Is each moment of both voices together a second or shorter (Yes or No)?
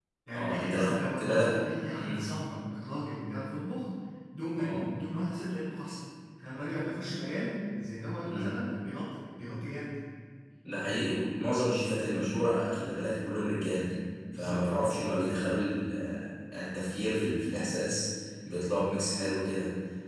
No